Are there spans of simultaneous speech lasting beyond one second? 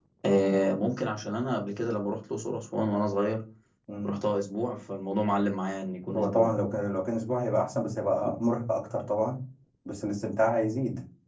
No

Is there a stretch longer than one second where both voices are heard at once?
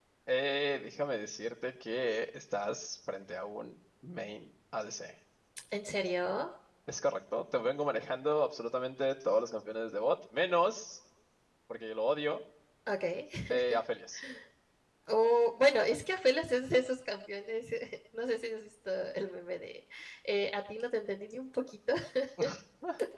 No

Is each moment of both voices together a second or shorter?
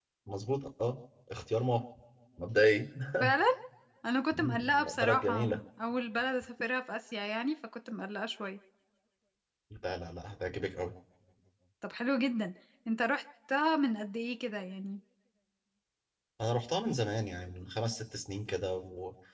No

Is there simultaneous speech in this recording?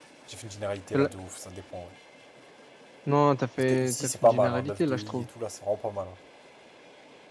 Yes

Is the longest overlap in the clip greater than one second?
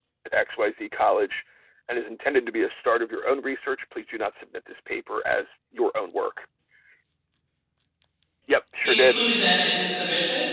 No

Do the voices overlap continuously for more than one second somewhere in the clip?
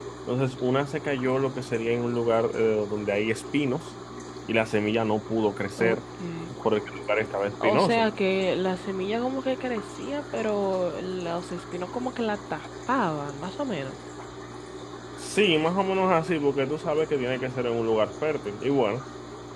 No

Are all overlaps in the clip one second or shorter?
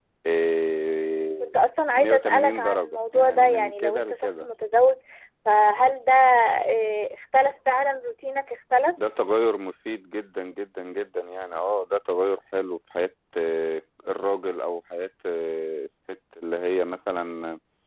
No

